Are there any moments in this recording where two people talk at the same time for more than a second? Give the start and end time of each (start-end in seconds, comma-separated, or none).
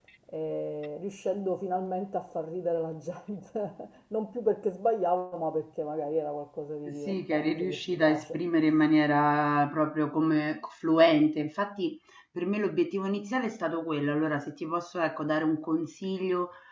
6.9-8.4